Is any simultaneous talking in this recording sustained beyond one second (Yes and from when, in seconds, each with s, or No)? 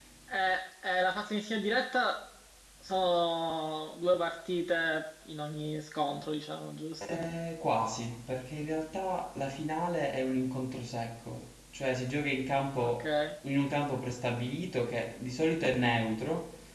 No